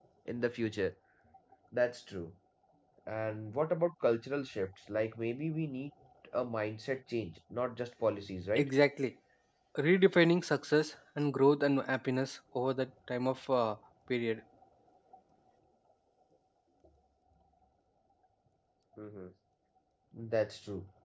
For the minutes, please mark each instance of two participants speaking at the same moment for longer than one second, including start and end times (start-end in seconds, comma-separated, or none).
none